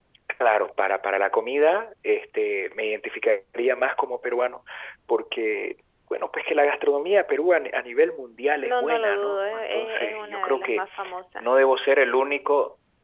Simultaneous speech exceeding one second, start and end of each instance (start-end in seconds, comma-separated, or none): 8.6-10.8